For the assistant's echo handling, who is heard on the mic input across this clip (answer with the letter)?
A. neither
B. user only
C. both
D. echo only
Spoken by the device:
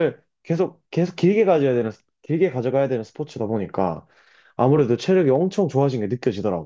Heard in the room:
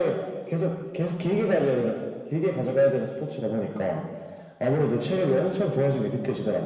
D